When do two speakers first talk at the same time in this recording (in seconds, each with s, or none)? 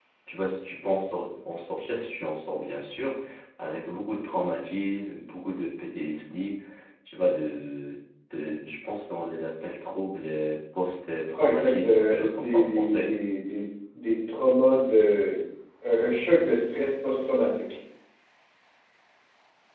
11.4 s